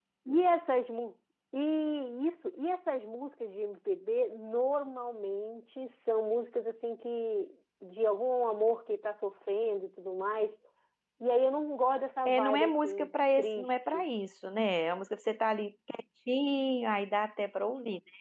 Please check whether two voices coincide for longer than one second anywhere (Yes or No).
Yes